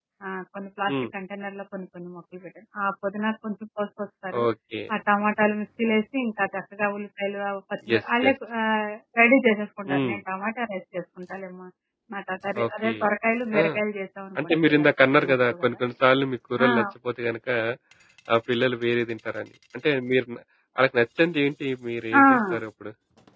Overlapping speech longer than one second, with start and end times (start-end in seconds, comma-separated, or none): 14.4-15.7